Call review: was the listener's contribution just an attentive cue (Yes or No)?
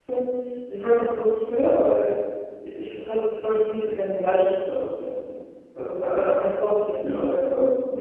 No